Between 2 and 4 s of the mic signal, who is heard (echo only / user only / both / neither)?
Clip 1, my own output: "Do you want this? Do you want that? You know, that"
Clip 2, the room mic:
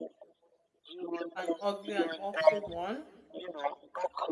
both